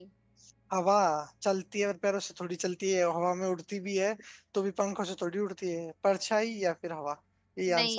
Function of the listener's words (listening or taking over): taking over